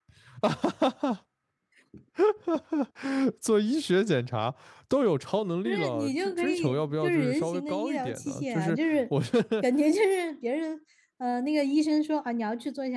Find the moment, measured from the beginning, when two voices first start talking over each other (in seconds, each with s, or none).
5.7 s